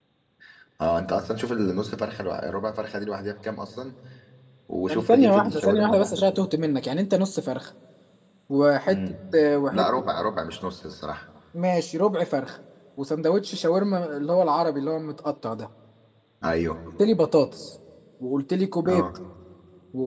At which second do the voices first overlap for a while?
4.9 s

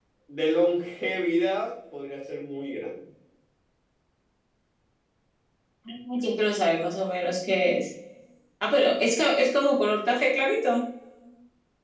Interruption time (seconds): none

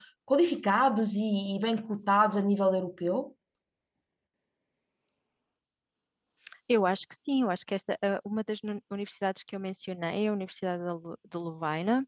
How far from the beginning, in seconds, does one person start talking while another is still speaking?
none

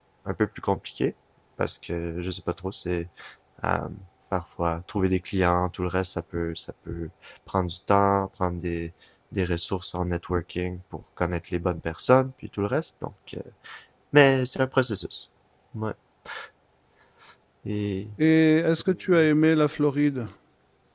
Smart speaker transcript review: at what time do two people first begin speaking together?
none

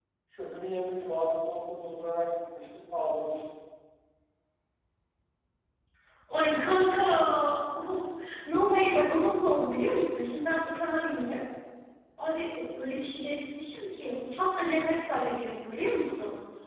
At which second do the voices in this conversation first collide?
none

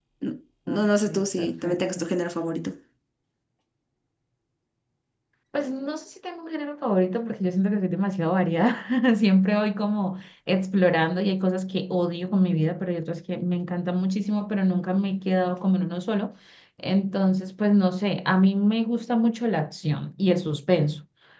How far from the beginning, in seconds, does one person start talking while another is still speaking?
0.7 s

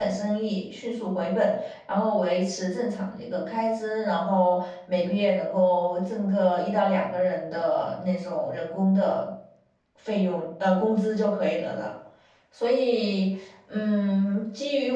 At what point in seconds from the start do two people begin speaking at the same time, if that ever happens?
none

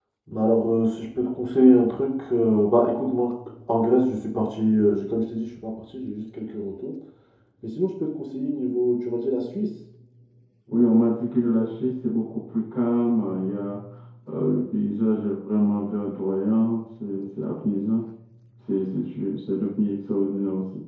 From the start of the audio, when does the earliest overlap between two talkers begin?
none

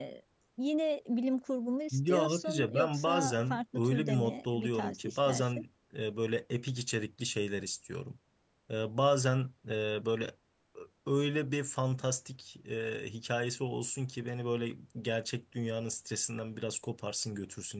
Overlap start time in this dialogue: 1.9 s

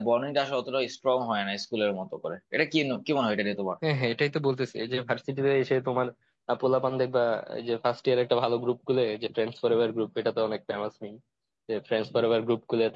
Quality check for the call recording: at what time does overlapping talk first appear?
none

